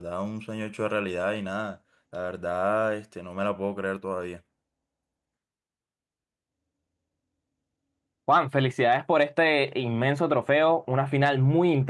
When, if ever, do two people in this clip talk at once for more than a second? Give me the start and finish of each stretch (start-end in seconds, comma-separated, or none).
none